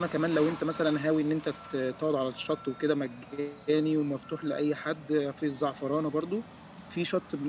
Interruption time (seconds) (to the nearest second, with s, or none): none